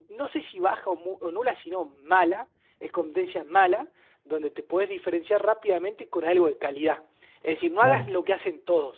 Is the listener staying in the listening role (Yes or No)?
Yes